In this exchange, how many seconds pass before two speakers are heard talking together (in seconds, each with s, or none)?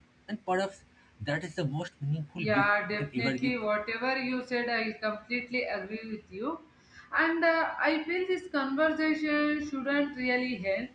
2.4 s